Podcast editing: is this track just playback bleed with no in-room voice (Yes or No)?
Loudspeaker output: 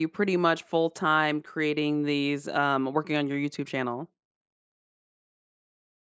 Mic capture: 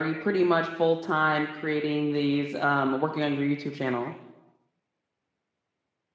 Yes